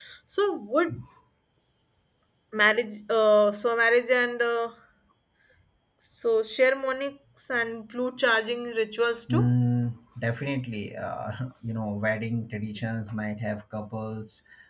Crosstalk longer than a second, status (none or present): none